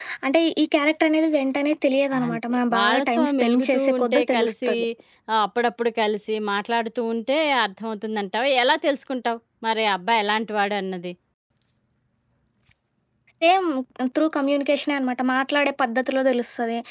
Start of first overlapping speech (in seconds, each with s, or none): 2.1 s